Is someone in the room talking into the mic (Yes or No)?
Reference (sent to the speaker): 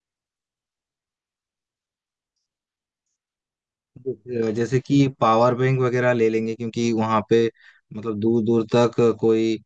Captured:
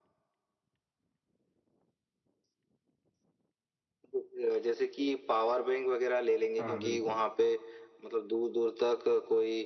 Yes